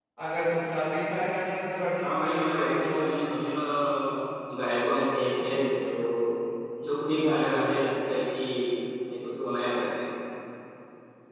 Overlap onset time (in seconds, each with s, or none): 2.0 s